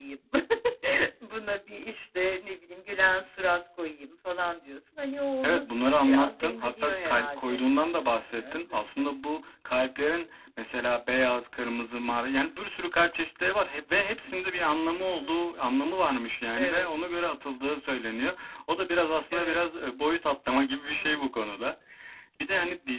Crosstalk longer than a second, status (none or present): present